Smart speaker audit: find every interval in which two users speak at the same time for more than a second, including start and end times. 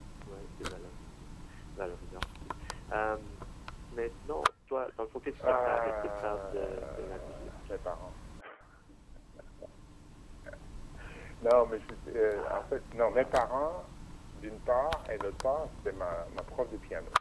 5.4-7.5

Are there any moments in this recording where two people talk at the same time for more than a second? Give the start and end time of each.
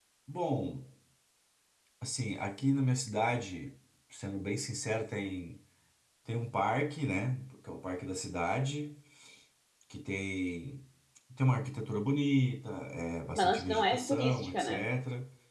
13.4-14.9

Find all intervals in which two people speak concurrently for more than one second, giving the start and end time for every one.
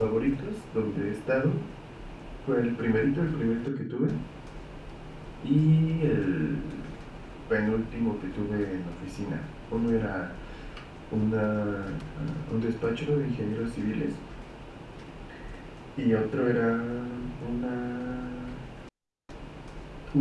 none

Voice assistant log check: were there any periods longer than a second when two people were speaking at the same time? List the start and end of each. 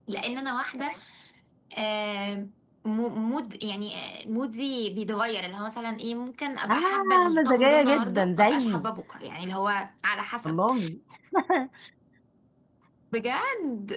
6.7-8.9

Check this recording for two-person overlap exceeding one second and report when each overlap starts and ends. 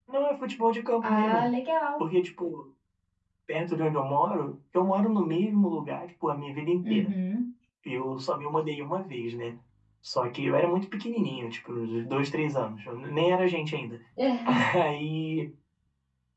none

